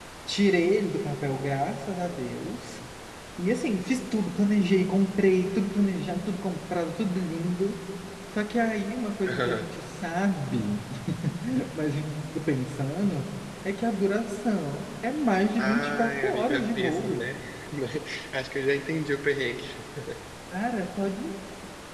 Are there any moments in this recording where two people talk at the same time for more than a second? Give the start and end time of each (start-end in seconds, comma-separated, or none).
15.6-17.3